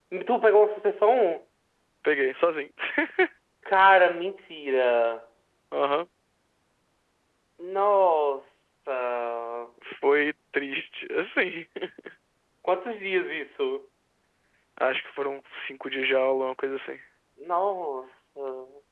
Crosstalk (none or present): none